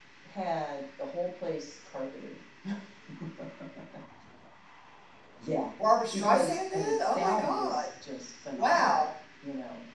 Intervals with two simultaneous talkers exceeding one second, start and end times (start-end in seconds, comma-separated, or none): 6.1-7.9